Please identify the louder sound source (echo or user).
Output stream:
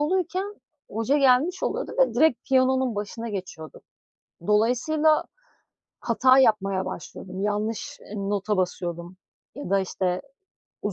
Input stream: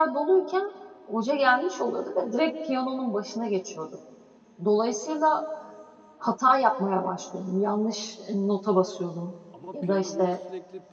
echo